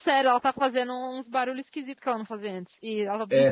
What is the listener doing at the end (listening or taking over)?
taking over